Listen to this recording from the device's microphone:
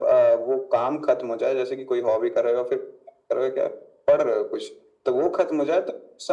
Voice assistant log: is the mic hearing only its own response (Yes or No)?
Yes